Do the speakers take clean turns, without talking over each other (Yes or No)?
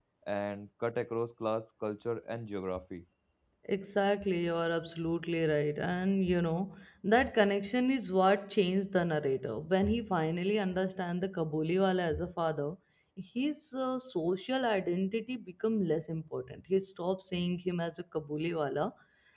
Yes